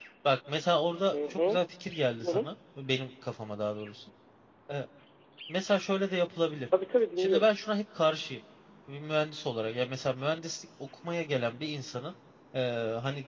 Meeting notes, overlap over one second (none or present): none